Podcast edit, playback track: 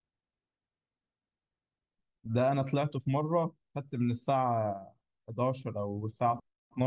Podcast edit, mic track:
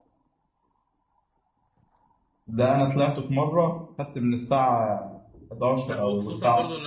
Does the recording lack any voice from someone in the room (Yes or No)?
No